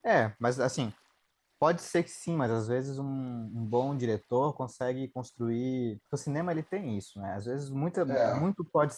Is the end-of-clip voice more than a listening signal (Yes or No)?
No